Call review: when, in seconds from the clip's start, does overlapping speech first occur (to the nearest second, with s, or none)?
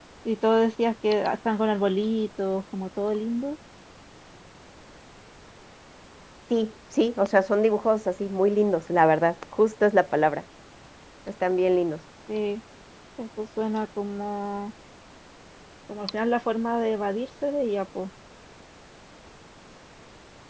none